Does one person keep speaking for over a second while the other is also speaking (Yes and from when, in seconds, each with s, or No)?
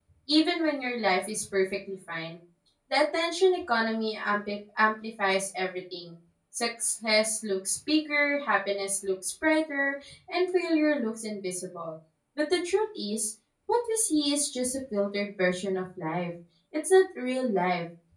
No